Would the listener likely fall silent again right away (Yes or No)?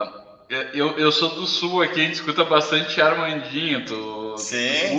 No